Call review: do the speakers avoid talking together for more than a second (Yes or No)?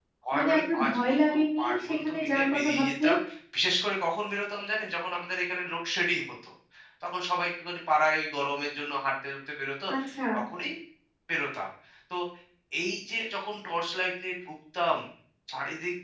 No